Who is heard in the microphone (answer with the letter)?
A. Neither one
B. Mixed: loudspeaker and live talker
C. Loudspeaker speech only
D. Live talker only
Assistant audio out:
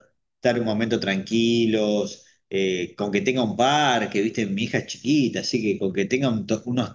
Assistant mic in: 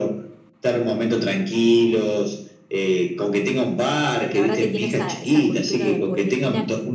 B